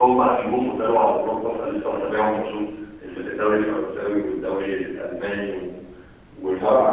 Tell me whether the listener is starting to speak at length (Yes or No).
Yes